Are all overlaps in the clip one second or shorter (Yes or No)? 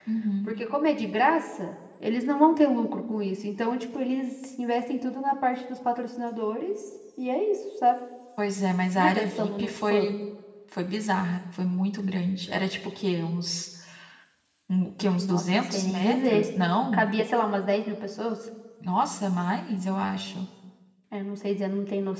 No